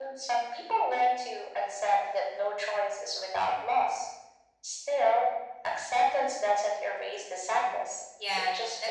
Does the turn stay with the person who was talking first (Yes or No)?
No